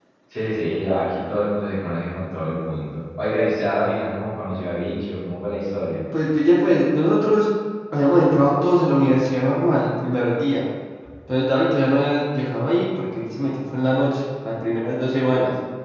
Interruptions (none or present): none